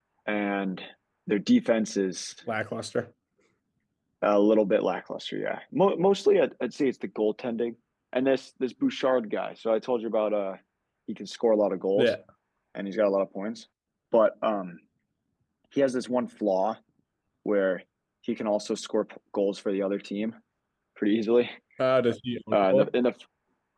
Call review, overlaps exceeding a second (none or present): none